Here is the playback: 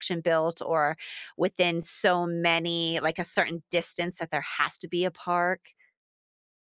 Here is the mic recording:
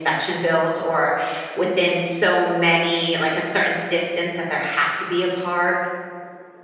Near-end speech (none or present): none